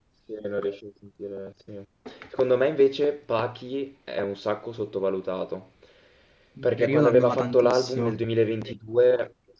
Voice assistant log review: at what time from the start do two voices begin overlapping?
6.6 s

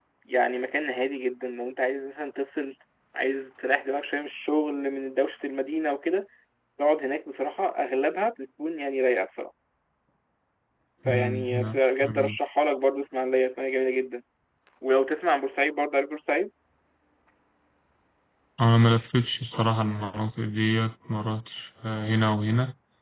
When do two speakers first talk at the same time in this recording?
11.1 s

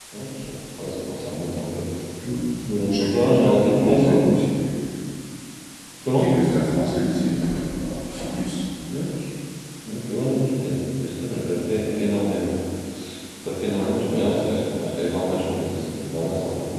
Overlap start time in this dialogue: 2.9 s

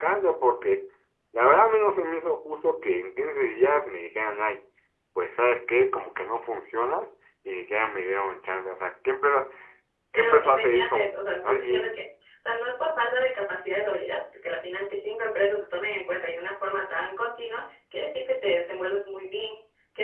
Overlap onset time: 10.1 s

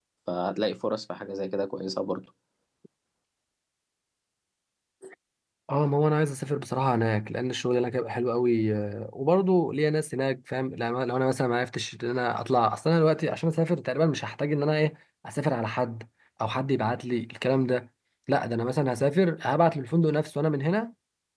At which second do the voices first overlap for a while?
none

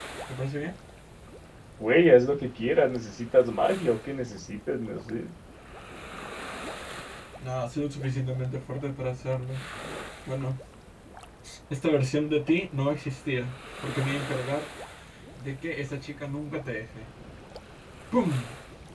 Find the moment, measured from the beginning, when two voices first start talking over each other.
none

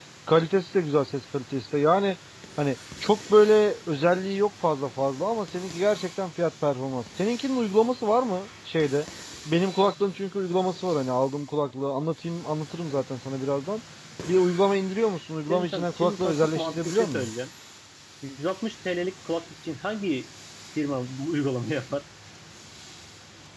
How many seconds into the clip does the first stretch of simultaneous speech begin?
15.5 s

